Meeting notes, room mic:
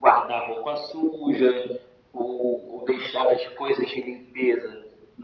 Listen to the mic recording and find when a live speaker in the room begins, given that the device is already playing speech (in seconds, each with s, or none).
none